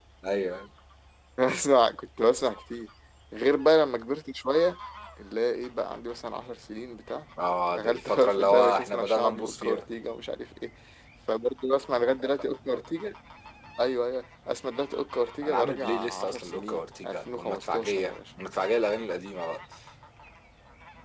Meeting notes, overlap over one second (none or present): present